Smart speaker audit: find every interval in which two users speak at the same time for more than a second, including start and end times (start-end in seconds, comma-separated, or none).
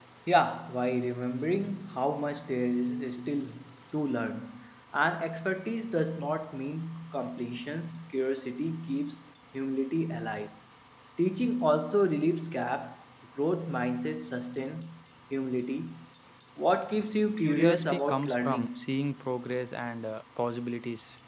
17.4-18.9